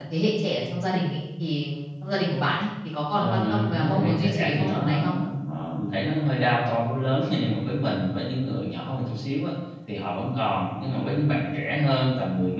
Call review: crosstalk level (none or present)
present